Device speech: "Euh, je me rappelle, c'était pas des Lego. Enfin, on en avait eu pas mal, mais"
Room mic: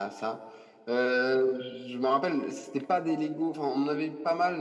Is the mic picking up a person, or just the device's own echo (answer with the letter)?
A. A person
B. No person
B